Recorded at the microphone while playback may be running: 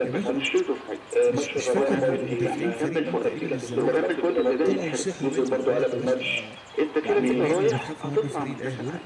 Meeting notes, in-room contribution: present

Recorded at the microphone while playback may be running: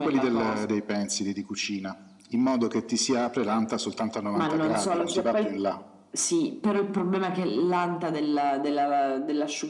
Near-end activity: none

